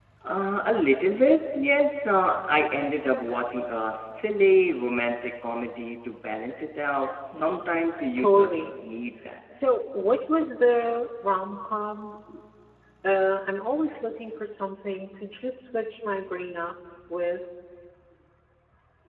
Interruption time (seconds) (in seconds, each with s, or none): 7.3 s